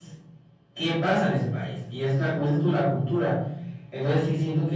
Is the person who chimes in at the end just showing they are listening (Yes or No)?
Yes